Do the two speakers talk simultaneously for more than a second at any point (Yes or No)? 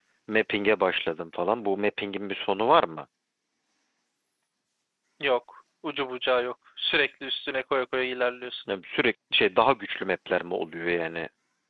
No